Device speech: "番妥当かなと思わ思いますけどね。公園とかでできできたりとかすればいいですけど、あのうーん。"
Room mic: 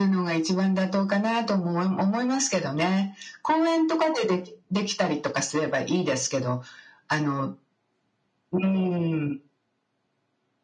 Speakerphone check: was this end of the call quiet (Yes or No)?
Yes